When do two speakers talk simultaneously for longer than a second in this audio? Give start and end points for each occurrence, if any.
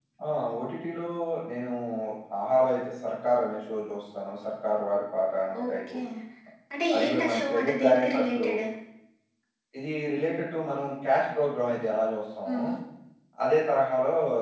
6.9-8.4

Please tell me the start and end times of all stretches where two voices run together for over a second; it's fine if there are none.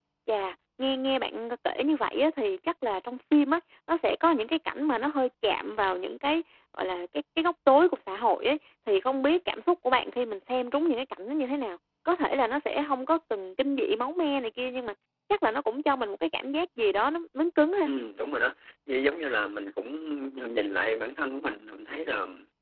none

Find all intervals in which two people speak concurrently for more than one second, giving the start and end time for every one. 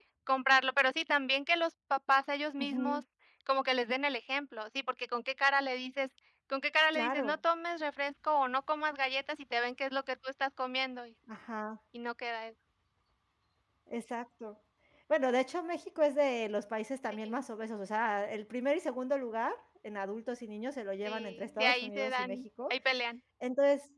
21.0-22.7

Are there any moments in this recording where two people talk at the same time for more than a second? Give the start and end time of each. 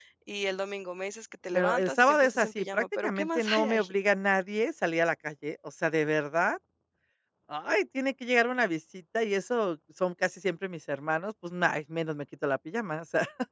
1.5-3.9

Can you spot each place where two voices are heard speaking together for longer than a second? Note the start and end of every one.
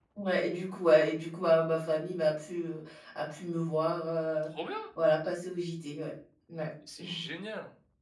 none

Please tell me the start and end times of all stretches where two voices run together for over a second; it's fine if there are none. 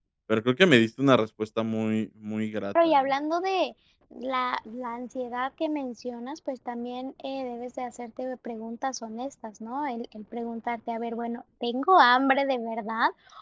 none

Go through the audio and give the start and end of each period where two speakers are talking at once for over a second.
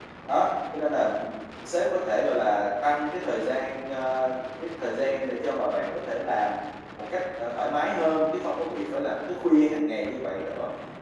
none

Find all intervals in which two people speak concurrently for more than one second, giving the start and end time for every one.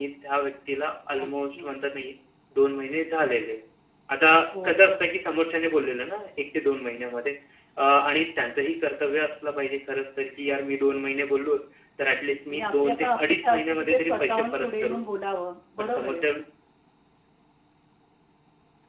12.5-15.0

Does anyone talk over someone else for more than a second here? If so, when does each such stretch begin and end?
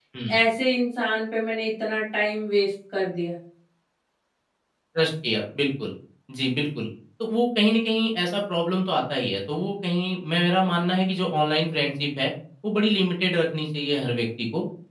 none

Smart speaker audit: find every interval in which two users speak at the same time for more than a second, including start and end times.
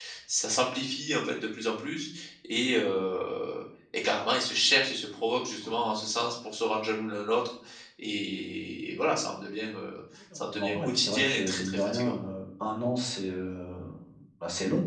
10.3-12.2

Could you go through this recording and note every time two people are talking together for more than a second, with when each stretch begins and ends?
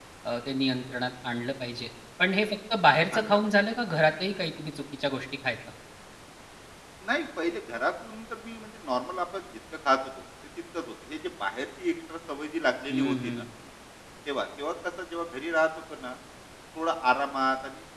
none

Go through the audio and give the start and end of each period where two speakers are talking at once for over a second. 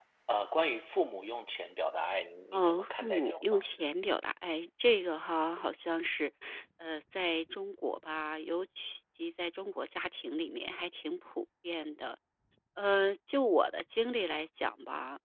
2.5-3.8

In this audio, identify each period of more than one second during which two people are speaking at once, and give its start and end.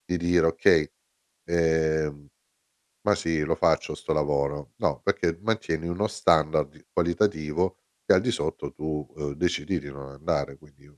none

